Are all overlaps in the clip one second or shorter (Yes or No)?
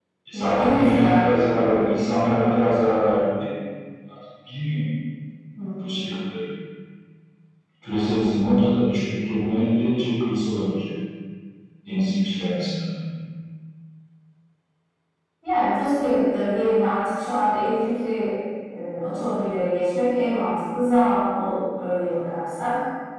No